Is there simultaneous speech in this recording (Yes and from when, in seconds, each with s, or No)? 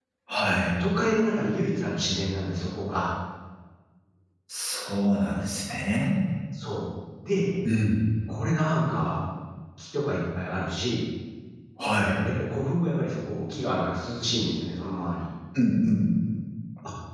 No